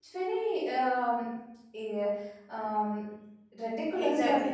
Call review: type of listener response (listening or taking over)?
taking over